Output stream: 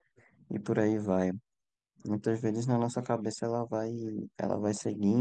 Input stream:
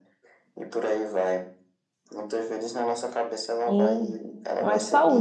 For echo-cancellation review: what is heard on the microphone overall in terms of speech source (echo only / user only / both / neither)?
both